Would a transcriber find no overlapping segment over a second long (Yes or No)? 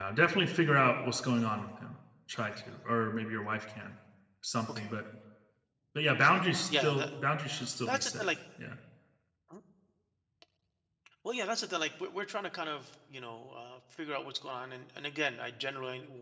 Yes